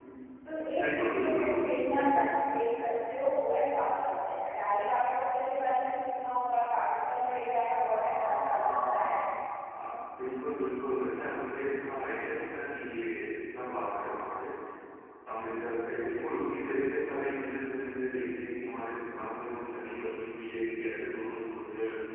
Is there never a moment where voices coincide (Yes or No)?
No